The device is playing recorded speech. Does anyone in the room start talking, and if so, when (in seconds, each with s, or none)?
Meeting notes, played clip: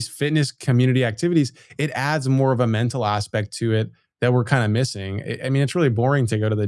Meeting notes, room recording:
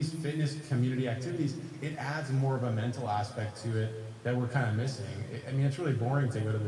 none